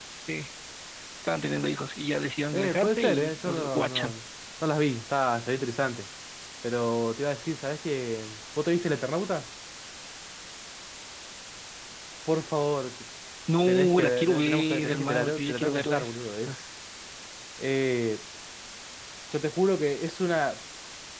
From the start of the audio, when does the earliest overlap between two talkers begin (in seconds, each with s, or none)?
2.5 s